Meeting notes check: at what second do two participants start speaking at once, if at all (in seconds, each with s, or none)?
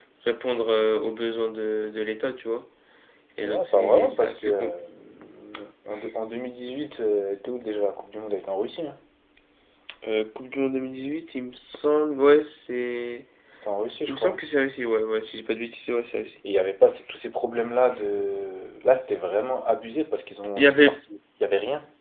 3.4 s